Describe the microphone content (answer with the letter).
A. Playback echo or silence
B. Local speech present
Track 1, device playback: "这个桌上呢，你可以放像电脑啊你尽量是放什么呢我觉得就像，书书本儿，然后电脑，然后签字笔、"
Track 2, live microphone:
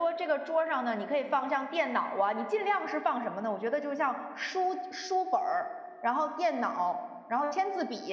A